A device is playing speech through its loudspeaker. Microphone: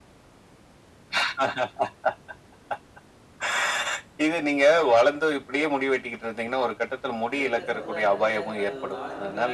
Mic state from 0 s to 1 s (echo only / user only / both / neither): neither